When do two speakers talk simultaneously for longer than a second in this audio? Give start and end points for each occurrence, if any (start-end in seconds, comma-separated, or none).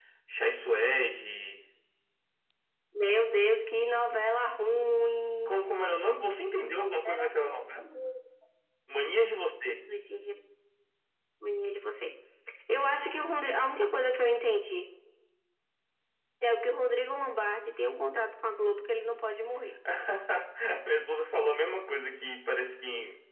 none